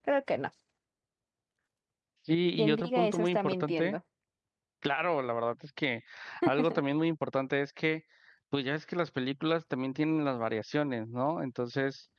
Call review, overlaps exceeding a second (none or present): present